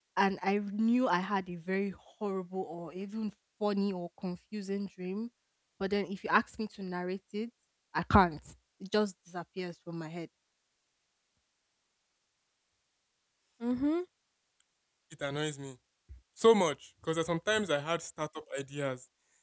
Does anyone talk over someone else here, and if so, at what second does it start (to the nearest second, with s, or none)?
none